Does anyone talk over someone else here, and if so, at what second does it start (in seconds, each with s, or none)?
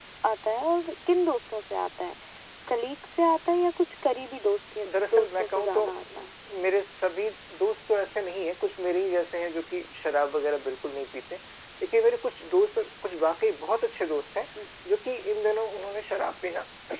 4.9 s